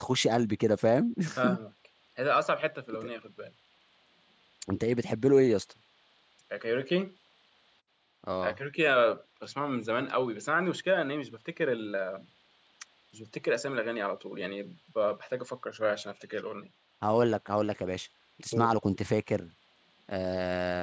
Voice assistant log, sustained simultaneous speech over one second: none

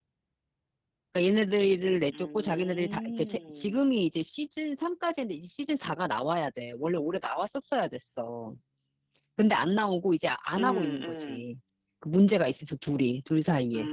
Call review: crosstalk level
present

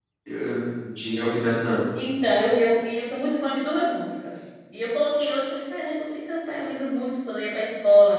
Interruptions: none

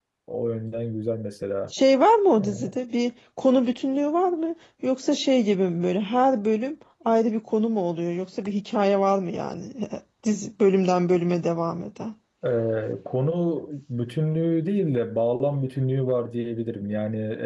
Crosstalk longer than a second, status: none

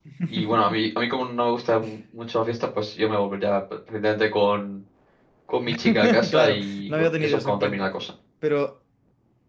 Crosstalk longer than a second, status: present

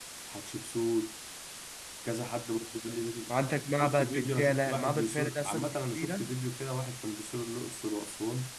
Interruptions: present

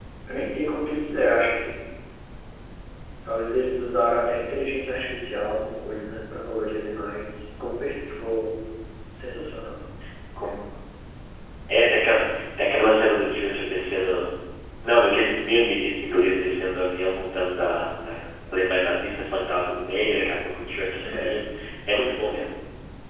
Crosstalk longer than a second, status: none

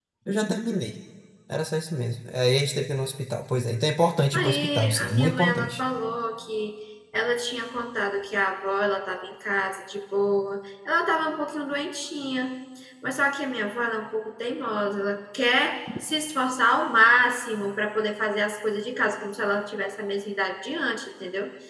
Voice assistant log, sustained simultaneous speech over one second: present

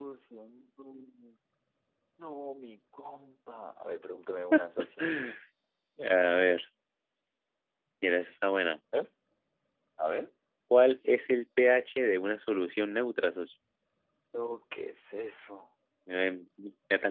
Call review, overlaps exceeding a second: none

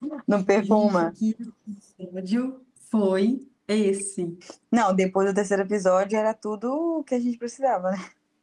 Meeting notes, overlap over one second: none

